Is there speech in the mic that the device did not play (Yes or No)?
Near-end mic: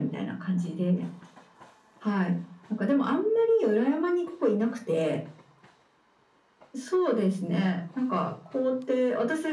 No